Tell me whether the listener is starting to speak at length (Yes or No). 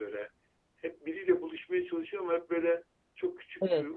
No